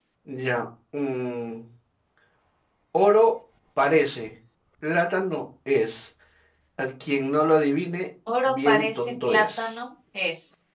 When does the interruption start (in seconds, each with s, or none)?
8.3 s